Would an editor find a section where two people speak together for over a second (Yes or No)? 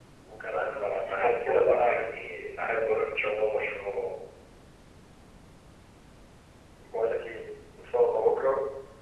Yes